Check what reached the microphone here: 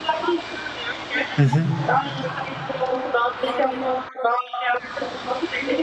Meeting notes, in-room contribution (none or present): present